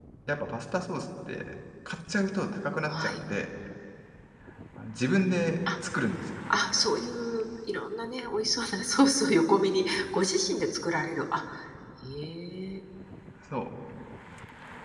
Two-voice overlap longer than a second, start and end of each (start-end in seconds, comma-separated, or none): none